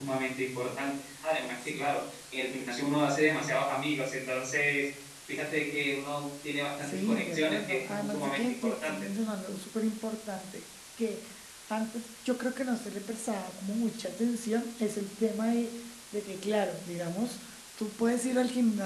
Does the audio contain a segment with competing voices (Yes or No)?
Yes